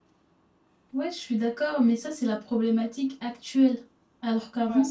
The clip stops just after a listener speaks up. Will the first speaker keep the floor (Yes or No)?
Yes